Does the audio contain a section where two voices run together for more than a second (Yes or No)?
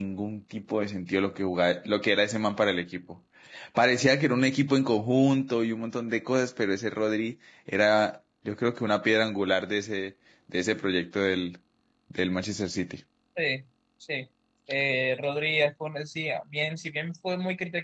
No